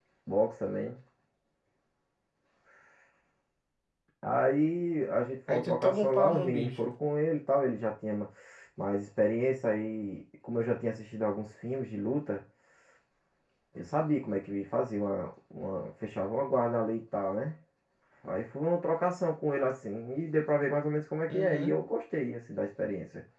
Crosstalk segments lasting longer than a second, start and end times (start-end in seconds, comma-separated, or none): 5.5-6.9